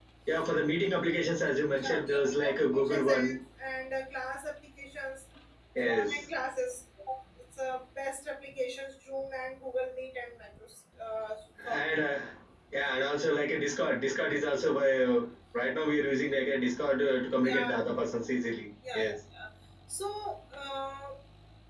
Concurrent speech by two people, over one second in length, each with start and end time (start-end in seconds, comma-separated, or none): 1.8-3.4